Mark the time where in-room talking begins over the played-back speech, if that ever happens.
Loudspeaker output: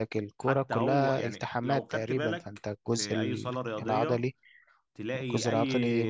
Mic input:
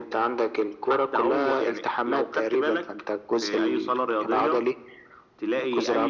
none

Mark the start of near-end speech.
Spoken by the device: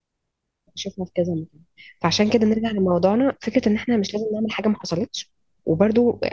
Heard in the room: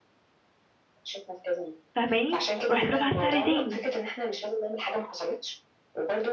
1.9 s

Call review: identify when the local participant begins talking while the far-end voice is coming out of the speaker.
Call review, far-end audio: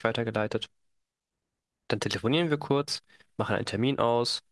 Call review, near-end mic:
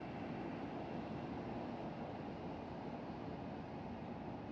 none

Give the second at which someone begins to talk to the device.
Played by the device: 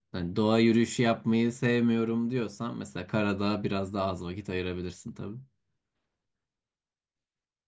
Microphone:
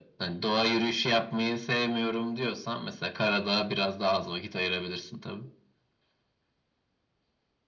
none

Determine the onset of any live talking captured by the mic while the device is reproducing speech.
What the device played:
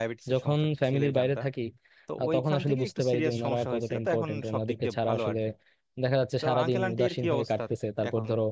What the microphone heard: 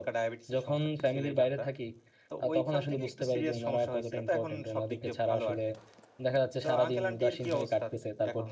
none

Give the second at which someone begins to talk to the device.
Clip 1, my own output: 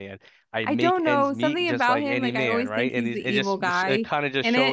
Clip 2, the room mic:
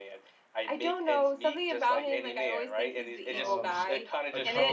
3.3 s

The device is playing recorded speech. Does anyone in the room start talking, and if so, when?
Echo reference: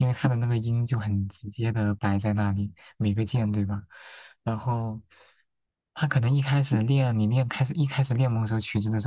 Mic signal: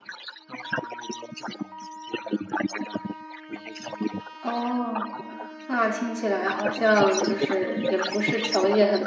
4.4 s

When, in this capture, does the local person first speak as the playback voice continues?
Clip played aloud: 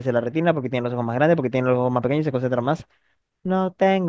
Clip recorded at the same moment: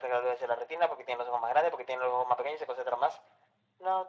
none

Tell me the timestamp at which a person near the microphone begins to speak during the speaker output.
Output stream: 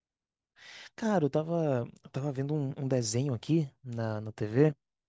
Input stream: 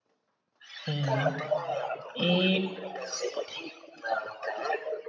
0.9 s

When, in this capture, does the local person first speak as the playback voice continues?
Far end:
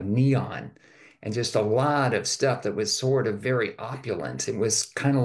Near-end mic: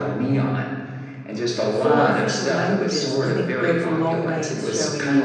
1.7 s

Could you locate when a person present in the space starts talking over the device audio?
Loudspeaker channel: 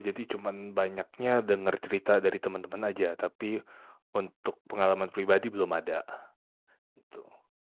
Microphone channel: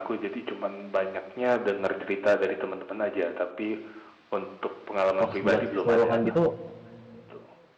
5.2 s

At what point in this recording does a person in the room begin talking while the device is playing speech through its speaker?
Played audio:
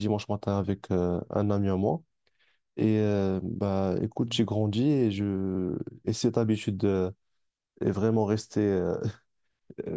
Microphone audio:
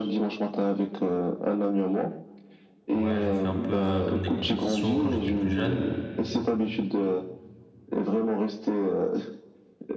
2.9 s

